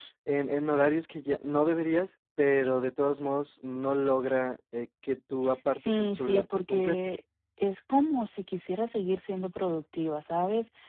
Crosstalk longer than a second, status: present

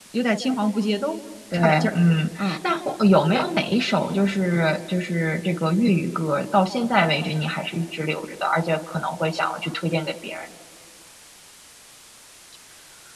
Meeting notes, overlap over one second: none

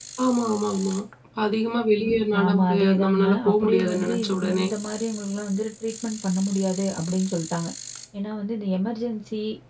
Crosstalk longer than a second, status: present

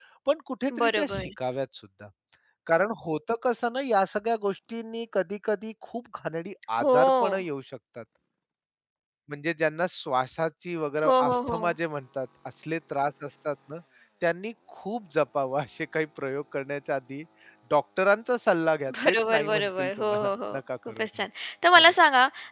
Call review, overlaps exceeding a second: present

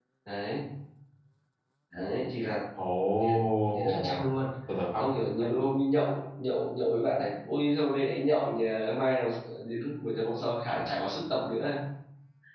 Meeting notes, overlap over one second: none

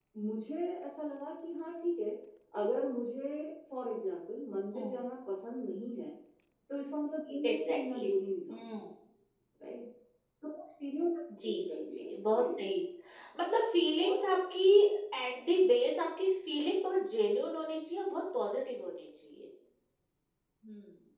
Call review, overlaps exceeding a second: present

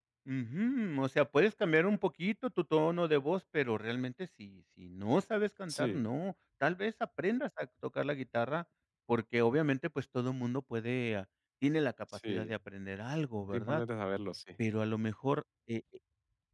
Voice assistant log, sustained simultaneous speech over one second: none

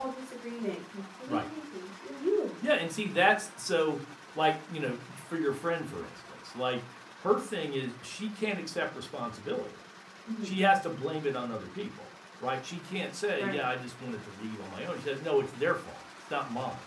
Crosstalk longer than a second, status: none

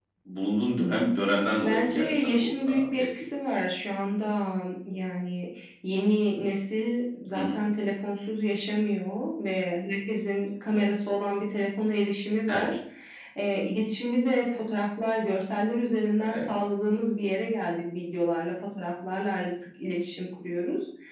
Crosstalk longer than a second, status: present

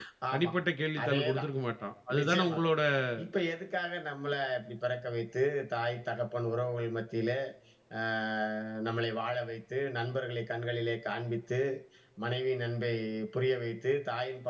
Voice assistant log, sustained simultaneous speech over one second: none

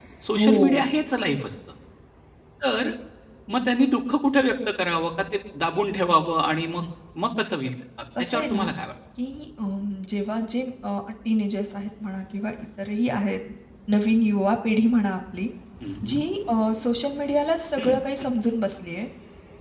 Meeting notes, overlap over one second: none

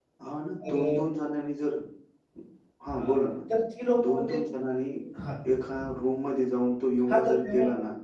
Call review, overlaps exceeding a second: none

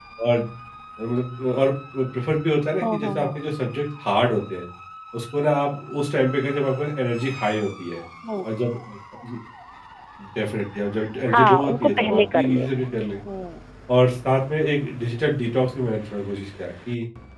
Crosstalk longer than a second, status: present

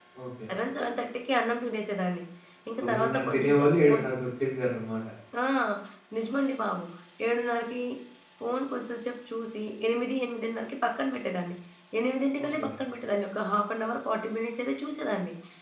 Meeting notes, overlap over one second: present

